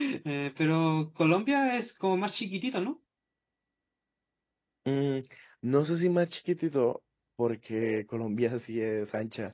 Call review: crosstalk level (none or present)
none